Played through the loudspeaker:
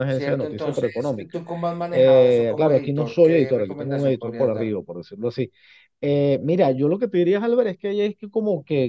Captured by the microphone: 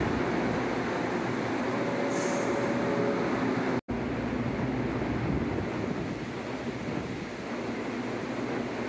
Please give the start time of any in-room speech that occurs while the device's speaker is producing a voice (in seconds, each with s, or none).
none